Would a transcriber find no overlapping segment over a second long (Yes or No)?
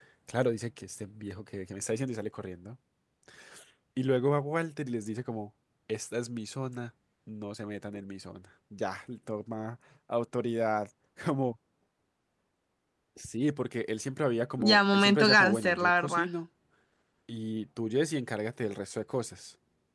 No